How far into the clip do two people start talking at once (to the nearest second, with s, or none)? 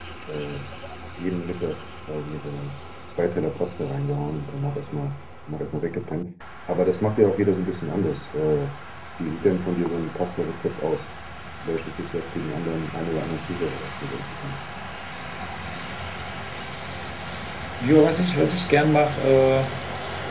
none